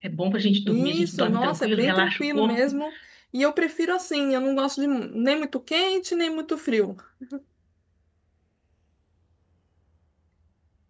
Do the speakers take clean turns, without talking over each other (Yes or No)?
No